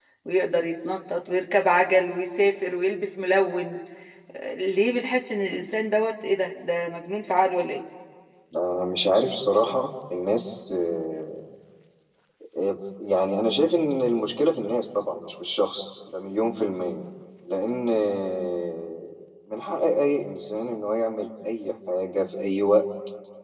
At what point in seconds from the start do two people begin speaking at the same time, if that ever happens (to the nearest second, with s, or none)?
none